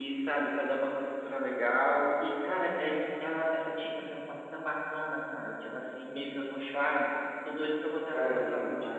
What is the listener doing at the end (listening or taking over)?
taking over